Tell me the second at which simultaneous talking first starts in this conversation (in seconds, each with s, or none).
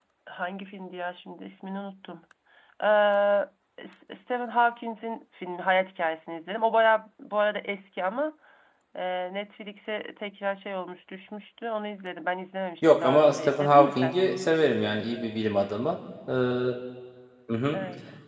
12.8 s